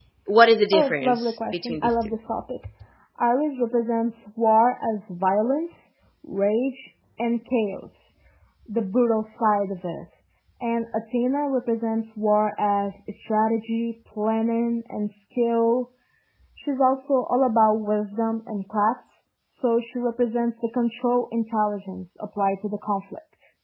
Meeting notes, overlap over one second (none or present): present